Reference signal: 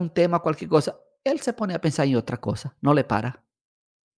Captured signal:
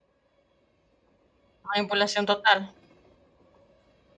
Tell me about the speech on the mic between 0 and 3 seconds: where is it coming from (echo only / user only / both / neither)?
user only